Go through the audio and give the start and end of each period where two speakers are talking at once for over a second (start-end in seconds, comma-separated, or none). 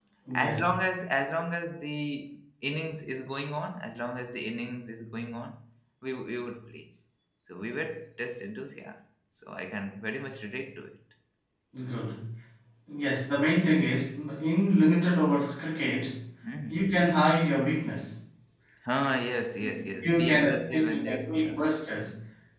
20.0-21.5